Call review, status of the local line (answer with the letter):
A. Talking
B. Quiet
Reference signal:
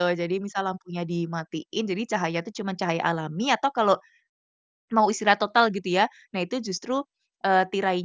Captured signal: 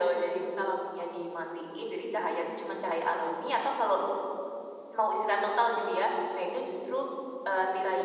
B